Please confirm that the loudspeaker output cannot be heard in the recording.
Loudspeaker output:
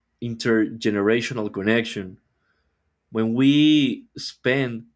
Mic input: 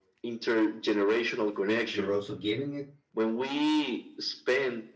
No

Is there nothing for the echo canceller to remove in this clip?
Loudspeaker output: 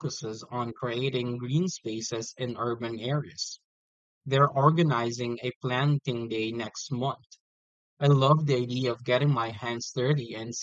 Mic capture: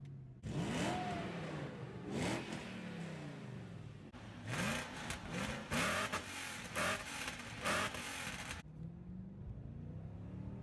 Yes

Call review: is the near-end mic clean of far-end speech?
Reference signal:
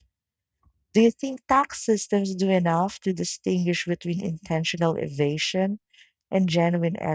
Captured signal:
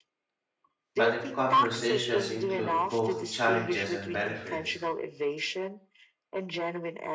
No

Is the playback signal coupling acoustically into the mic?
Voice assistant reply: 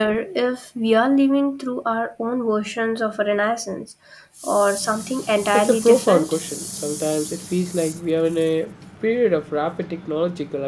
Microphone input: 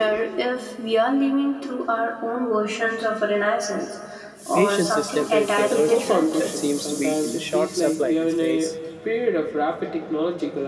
Yes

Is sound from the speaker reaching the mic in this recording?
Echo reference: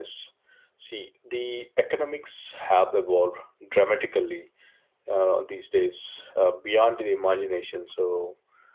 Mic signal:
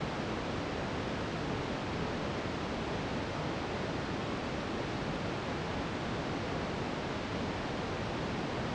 No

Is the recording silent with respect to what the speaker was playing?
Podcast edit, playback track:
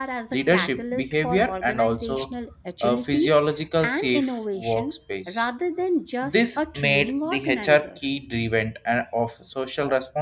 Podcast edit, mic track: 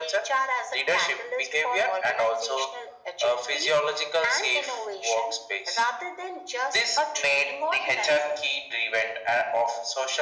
No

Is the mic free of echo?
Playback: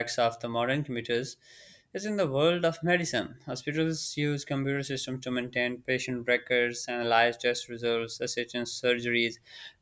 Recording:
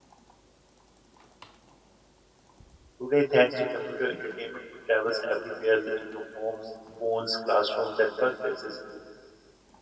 Yes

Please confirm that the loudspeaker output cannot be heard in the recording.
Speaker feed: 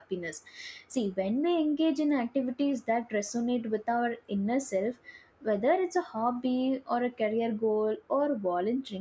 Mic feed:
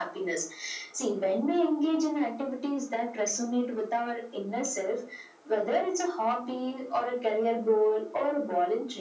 No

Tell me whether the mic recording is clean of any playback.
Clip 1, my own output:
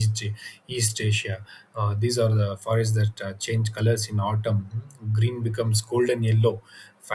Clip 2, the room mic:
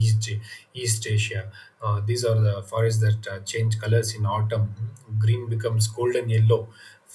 No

